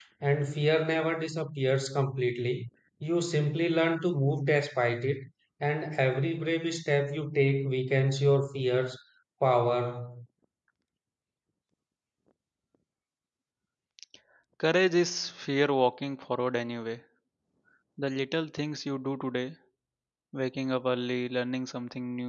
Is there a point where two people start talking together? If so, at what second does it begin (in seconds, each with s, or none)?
none